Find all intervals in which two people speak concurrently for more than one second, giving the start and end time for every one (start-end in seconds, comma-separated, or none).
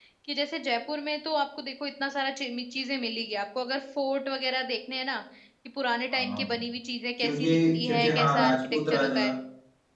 7.2-9.2